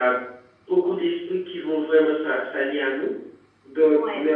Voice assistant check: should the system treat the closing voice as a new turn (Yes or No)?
No